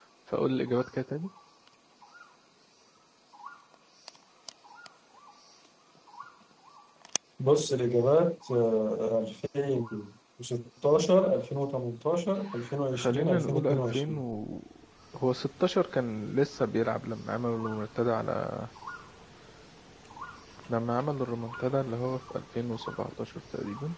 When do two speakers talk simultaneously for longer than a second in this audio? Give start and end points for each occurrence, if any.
12.9-14.2

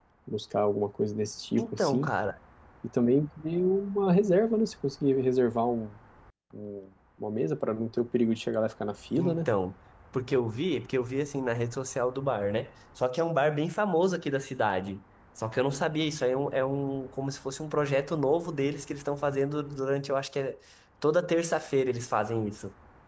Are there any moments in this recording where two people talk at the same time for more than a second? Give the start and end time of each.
none

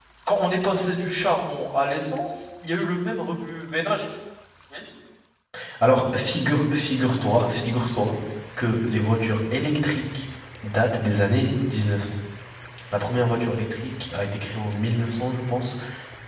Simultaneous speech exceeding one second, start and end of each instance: none

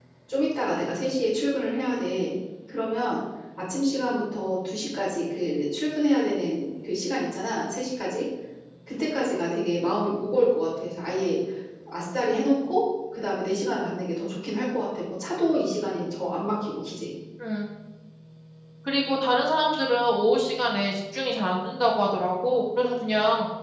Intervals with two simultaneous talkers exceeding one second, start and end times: none

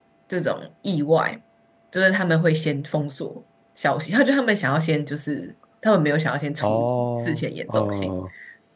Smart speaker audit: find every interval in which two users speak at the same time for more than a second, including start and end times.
6.6-8.1

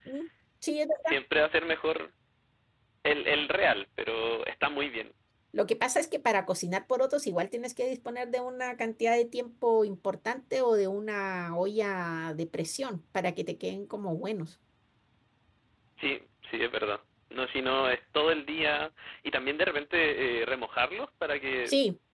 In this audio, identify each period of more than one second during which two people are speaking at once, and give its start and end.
none

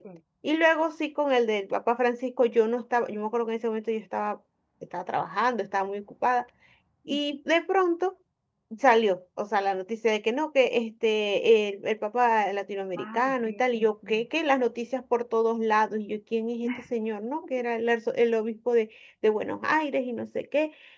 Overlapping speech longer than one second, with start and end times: 13.0-14.2

